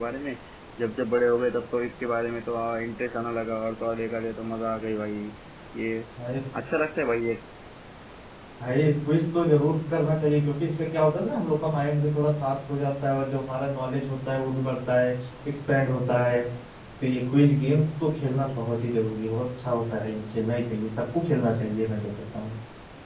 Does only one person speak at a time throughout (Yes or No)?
Yes